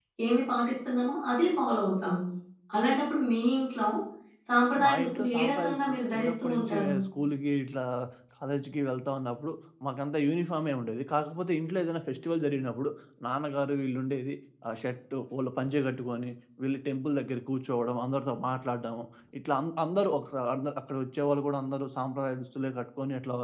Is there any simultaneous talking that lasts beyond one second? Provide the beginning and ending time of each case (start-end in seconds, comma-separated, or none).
4.8-6.9